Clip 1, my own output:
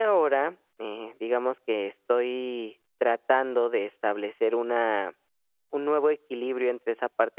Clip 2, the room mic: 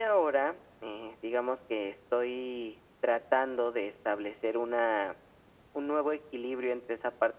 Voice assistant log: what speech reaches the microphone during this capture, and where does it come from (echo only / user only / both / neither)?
echo only